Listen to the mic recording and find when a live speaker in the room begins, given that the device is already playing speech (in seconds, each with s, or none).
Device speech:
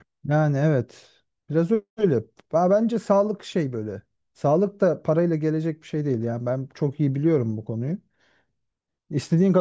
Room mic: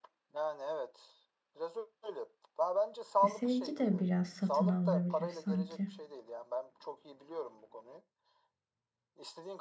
3.2 s